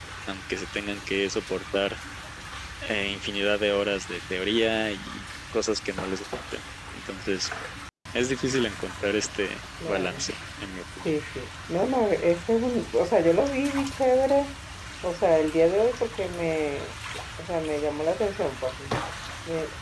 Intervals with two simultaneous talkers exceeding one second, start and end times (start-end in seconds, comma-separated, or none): none